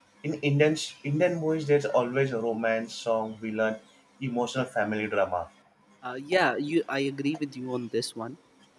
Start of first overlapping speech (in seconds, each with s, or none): none